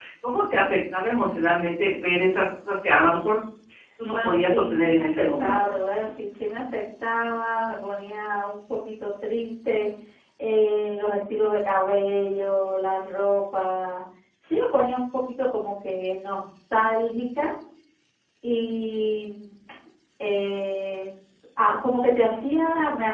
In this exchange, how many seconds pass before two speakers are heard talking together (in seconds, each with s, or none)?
4.1 s